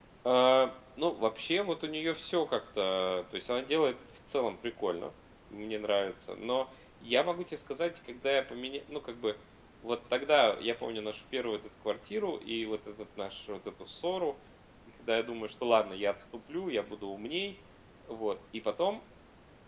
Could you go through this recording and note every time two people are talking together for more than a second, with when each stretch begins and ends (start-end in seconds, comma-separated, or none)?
none